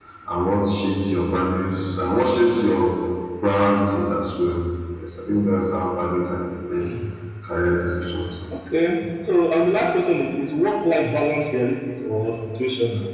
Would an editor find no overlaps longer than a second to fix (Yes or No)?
Yes